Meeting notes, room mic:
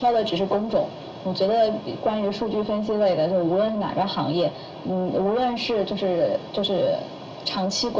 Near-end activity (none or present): none